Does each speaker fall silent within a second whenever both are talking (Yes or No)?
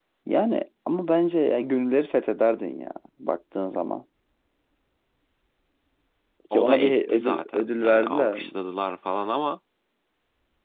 No